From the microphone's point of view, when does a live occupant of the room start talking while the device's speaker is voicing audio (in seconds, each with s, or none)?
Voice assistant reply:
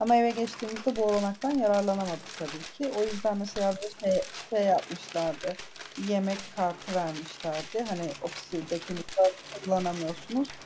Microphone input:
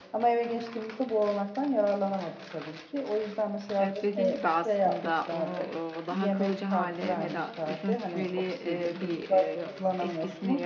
3.8 s